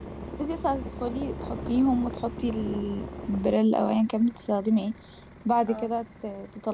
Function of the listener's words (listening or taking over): listening